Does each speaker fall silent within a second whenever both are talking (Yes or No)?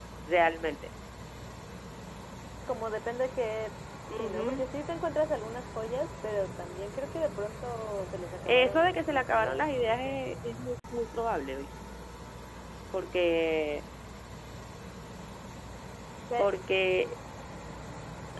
No